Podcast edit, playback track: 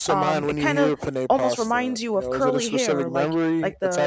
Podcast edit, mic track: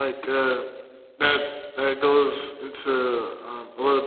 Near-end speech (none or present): present